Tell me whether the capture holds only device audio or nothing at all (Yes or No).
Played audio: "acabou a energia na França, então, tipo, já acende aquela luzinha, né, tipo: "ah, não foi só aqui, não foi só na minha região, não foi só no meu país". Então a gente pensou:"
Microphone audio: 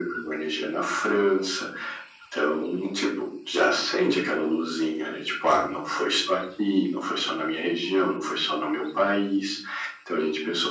Yes